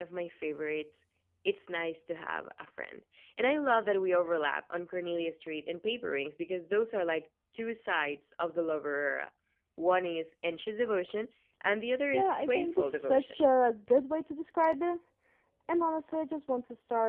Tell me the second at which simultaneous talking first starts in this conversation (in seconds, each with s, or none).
12.1 s